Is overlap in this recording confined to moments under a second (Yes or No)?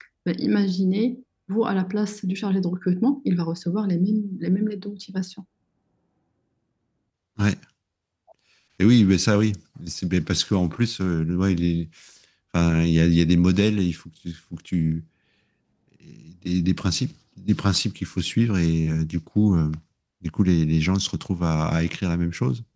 Yes